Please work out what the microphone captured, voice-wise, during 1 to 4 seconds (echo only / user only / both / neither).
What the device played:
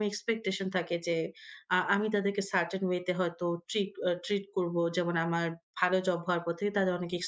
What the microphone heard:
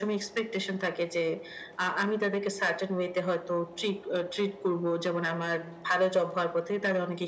echo only